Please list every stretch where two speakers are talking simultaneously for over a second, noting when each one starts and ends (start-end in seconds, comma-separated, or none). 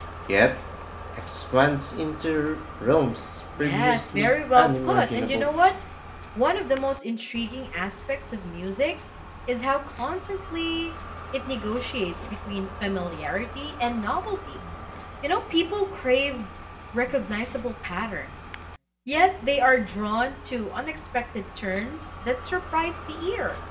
3.6-5.5